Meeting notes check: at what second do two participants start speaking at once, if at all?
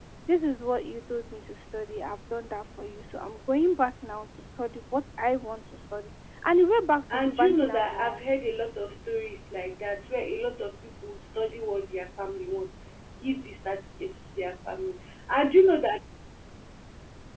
7.1 s

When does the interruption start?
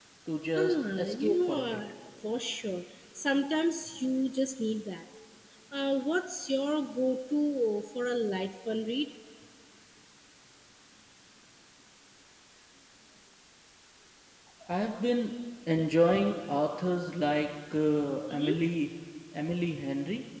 0.6 s

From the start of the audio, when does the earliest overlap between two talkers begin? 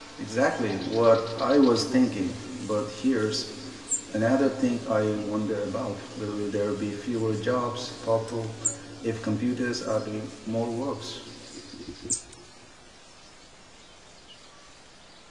none

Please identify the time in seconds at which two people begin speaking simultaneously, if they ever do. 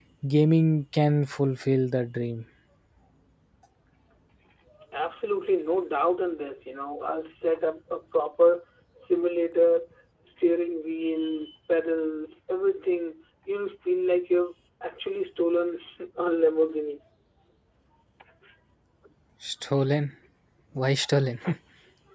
none

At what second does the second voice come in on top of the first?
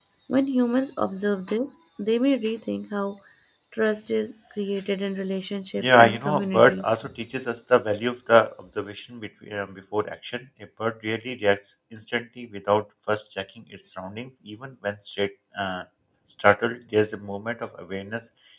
5.8 s

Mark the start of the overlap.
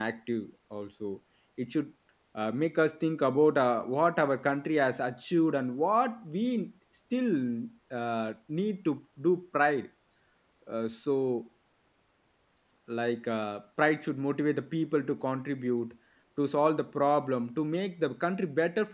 none

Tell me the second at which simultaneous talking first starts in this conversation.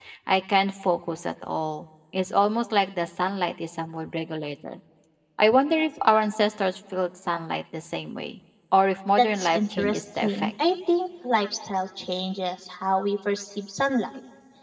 9.2 s

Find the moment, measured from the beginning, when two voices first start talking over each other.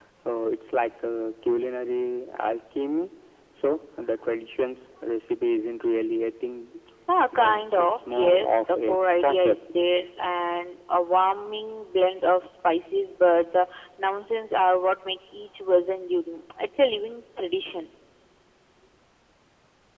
7.4 s

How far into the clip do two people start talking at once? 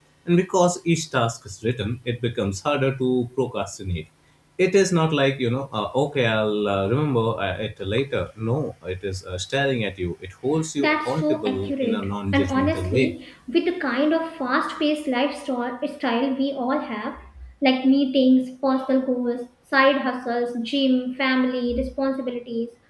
10.8 s

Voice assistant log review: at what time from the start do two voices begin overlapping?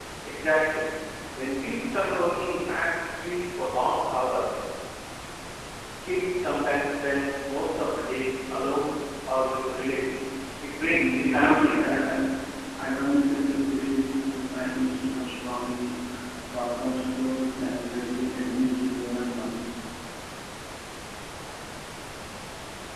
10.9 s

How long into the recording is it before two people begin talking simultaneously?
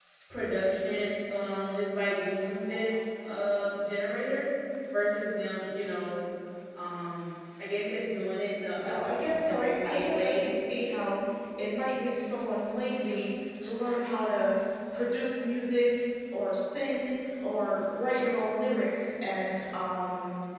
8.7 s

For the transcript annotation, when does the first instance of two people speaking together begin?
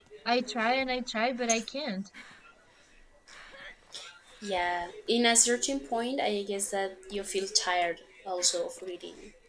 none

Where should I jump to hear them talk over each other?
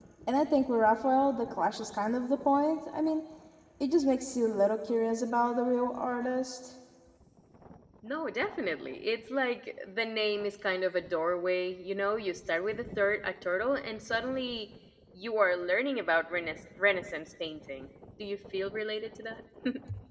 none

